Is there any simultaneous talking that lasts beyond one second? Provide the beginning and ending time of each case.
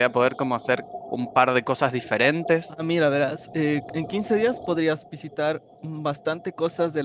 none

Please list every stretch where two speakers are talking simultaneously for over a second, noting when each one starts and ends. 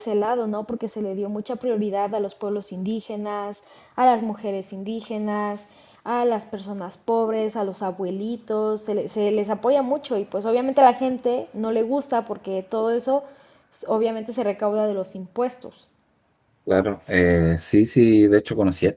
none

